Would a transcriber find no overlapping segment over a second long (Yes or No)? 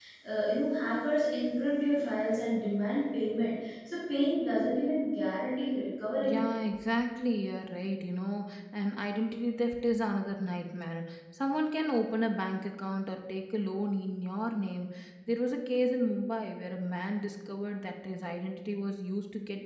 Yes